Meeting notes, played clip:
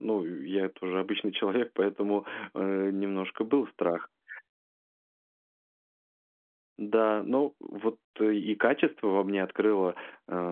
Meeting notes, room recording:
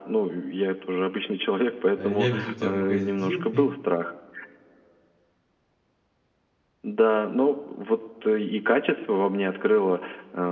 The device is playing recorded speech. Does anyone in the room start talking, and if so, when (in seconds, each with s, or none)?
1.9 s